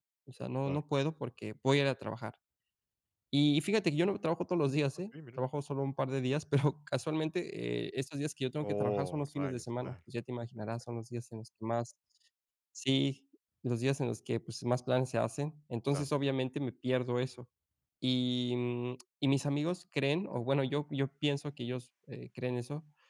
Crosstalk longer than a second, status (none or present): present